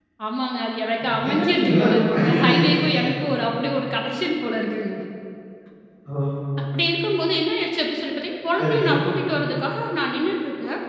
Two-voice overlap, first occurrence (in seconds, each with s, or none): 1.0 s